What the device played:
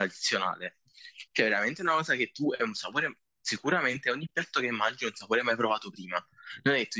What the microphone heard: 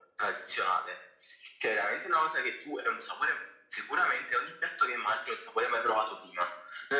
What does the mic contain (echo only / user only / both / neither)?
echo only